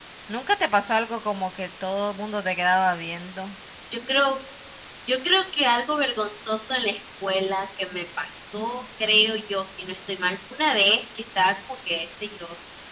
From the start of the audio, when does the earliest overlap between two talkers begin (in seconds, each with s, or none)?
none